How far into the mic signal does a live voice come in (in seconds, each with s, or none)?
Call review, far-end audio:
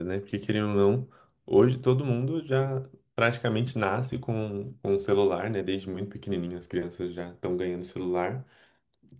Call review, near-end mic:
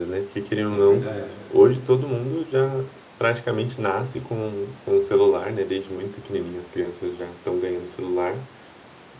0.7 s